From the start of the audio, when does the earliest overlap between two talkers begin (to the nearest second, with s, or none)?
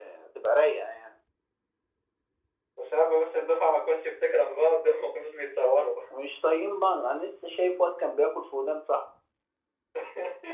none